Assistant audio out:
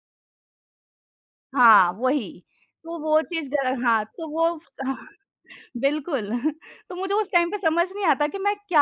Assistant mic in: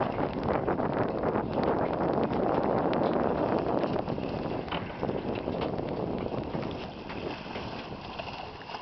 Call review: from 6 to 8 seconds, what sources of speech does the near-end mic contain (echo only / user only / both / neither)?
neither